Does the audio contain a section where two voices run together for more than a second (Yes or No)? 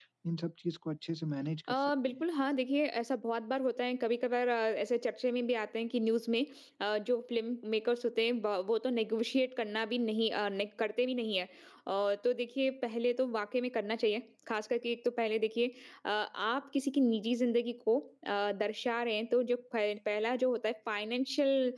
No